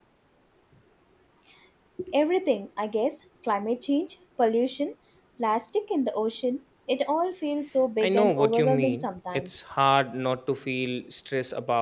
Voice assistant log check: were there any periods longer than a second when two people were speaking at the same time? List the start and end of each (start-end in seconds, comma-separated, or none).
8.0-9.6